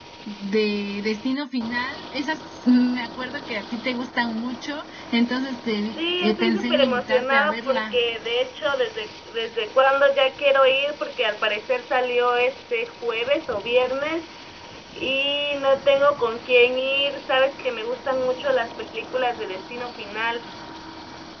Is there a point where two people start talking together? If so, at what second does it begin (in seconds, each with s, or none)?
5.8 s